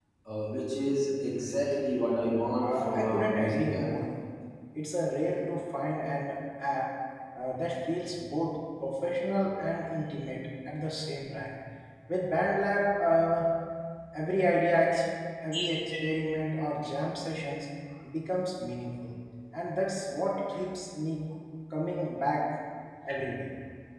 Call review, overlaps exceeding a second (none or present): present